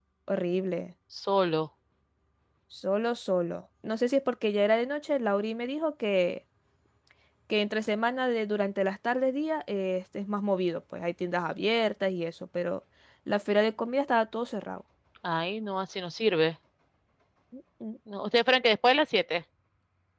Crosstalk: none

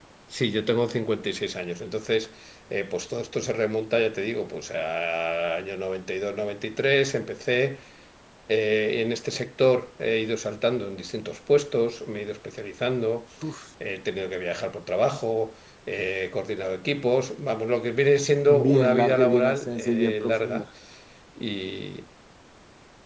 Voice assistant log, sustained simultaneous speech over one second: present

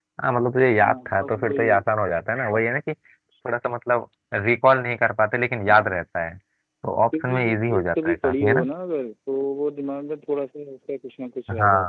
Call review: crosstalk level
present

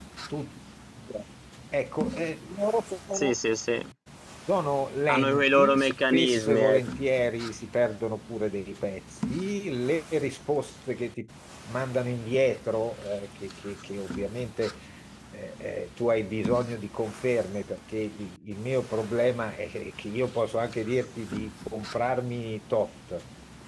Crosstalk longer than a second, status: present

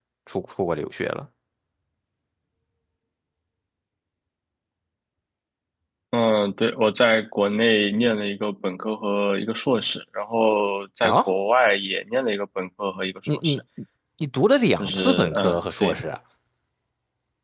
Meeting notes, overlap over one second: present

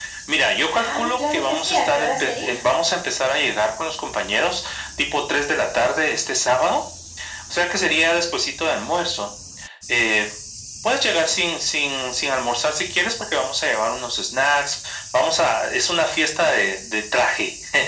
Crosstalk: present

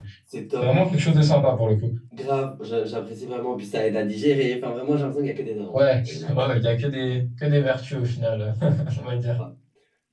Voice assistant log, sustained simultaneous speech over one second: none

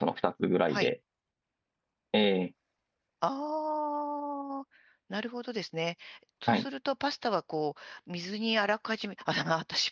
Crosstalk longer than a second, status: none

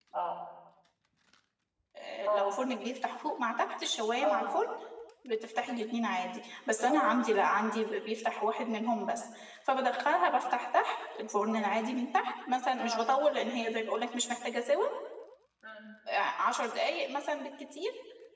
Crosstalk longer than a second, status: none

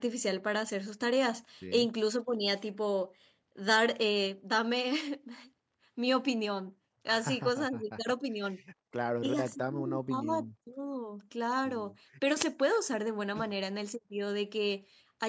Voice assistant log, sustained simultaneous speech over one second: present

